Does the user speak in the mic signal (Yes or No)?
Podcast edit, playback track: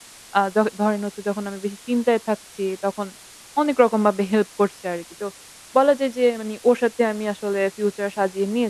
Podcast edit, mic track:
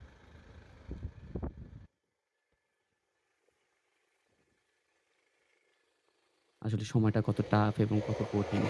Yes